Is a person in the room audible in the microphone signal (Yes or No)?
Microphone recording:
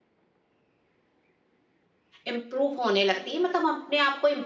Yes